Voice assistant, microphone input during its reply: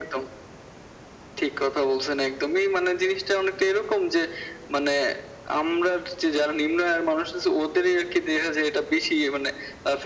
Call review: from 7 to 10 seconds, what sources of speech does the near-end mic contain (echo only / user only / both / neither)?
echo only